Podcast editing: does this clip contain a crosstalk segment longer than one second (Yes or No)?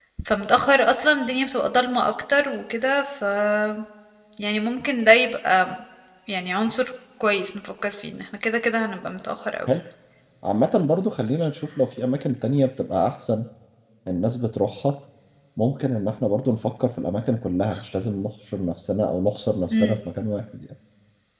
No